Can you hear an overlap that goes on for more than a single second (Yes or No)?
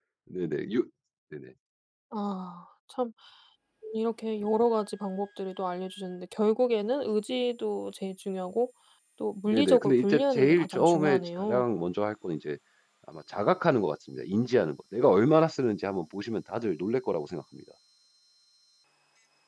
Yes